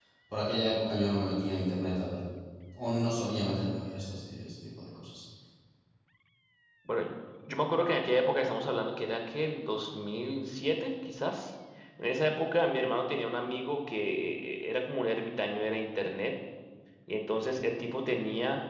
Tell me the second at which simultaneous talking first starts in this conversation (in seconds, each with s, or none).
none